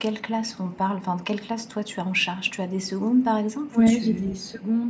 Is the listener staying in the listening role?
No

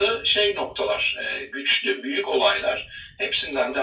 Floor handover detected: No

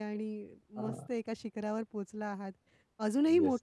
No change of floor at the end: Yes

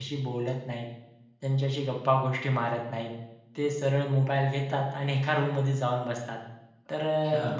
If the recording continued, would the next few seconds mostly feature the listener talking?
No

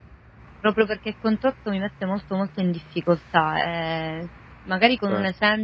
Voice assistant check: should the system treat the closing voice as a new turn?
No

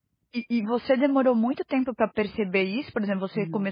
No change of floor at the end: Yes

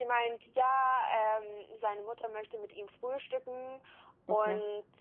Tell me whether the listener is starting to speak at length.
No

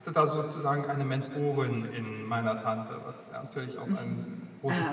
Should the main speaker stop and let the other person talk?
Yes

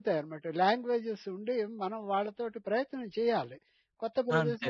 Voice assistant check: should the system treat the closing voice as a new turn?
No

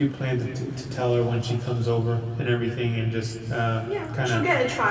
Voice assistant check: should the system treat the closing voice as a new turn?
Yes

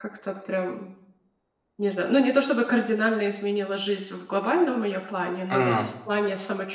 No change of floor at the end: Yes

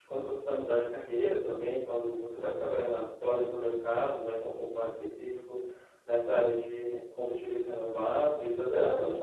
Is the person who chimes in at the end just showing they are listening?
Yes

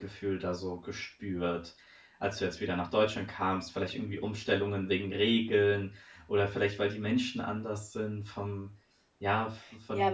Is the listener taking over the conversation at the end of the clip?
Yes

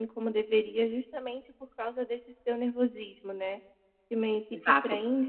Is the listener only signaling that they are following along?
Yes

